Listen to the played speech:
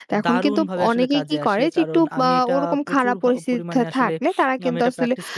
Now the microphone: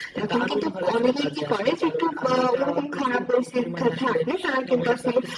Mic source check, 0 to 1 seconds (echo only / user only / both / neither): echo only